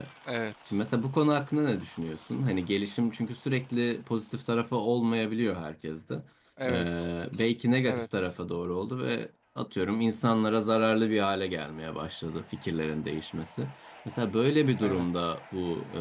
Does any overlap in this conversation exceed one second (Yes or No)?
No